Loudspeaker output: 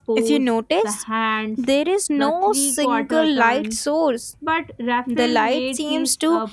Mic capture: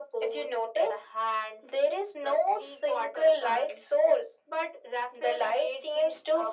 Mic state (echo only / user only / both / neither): echo only